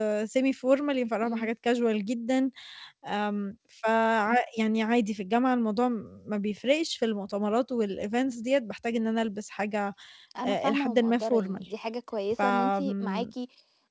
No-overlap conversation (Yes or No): No